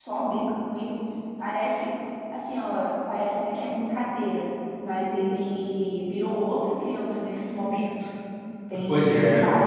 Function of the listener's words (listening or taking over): taking over